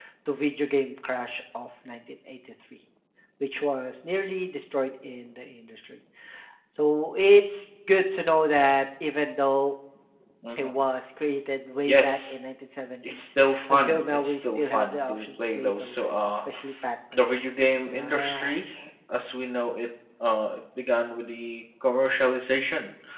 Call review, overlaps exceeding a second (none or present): present